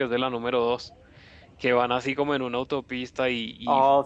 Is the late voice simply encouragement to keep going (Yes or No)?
Yes